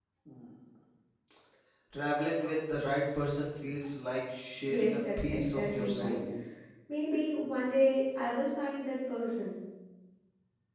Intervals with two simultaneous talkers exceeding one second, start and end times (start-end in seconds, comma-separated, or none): 4.7-6.2